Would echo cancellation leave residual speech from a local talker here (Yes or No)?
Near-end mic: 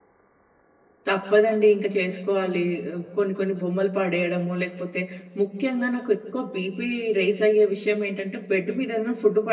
Yes